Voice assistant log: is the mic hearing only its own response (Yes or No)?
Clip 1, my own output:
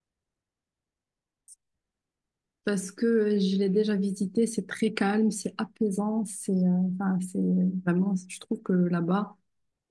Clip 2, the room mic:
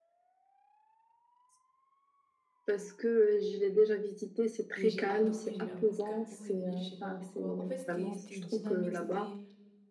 No